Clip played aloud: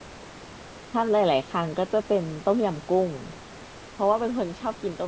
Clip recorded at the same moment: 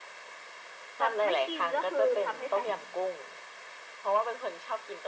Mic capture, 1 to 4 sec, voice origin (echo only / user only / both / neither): both